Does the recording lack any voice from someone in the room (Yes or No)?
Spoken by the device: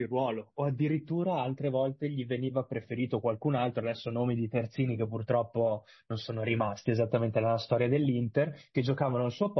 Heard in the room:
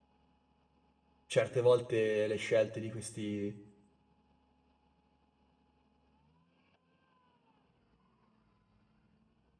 No